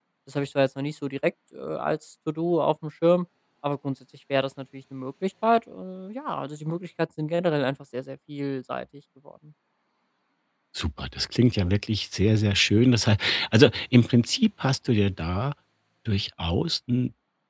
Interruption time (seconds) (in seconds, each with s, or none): none